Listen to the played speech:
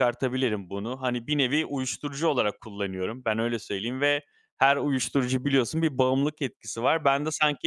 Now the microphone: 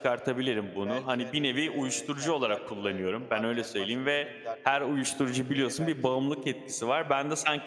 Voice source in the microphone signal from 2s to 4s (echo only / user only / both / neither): both